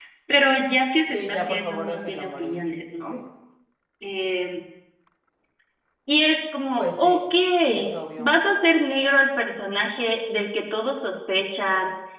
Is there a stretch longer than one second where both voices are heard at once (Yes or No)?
Yes